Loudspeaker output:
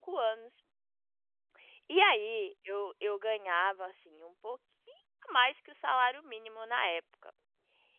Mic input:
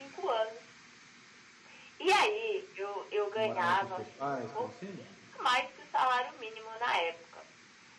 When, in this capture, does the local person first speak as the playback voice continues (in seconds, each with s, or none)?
3.3 s